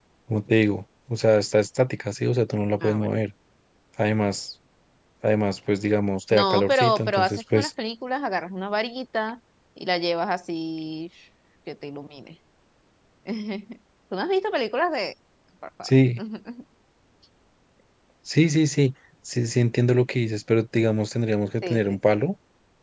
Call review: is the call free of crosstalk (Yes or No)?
No